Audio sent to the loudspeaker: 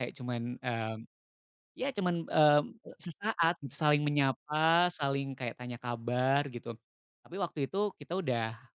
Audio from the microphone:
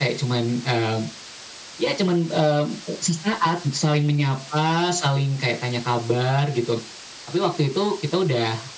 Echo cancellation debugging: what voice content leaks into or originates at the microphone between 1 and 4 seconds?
echo only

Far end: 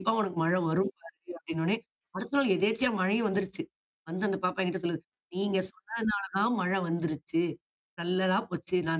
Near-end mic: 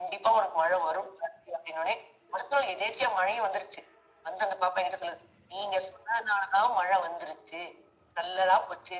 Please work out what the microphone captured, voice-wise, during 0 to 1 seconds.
echo only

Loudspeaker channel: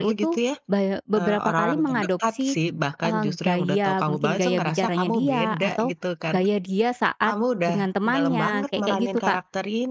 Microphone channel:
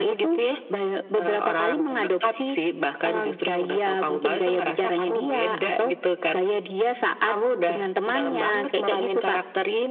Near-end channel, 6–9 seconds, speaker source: echo only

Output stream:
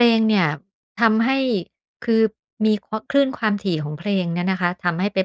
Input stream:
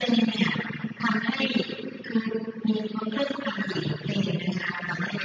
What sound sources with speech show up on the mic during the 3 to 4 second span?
echo only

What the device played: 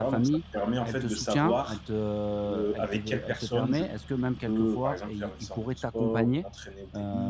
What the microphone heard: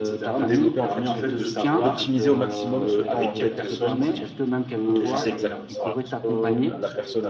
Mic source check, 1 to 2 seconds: both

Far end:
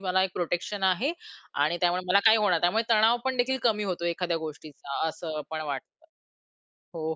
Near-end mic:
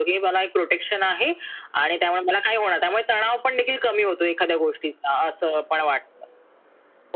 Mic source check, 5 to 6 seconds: echo only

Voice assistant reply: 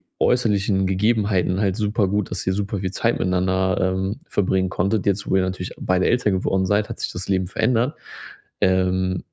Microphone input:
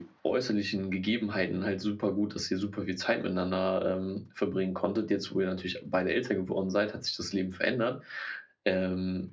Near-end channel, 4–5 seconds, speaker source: echo only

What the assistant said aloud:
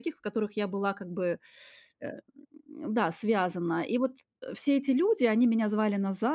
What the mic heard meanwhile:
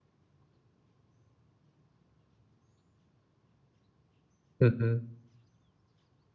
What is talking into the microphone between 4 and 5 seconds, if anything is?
user only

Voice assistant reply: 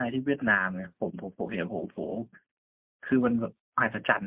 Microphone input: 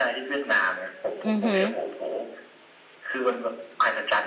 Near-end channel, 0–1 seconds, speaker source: echo only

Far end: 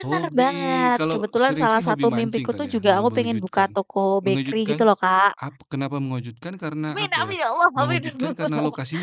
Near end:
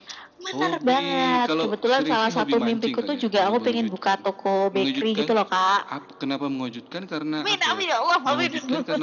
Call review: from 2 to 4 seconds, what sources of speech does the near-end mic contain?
echo only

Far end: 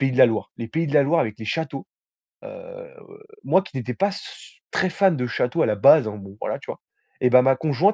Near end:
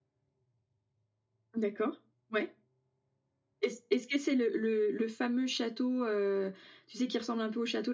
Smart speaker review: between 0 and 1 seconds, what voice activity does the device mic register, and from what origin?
neither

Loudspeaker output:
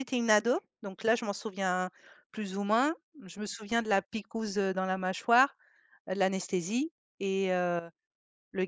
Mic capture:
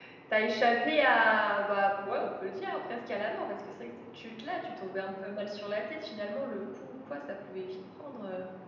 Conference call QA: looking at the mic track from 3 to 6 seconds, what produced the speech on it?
user only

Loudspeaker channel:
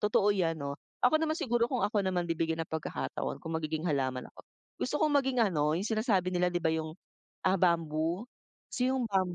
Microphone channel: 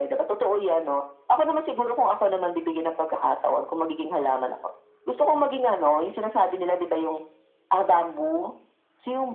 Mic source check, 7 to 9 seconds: echo only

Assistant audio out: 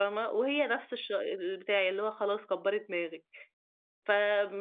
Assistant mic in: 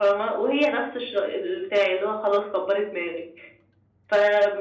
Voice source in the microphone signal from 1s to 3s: echo only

